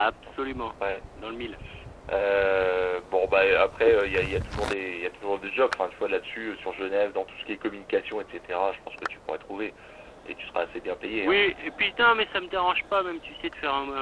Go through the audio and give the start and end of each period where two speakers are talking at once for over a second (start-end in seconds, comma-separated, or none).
none